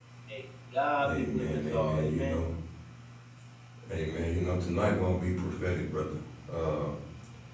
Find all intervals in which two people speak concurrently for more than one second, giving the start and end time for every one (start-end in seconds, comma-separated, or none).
1.0-2.4